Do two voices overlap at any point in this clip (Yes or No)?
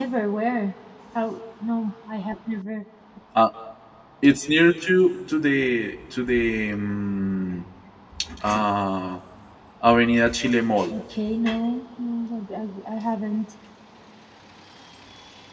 No